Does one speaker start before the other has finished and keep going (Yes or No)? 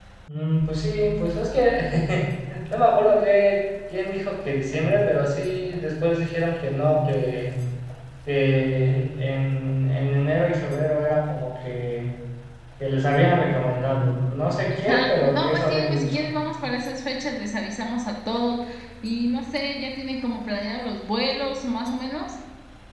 Yes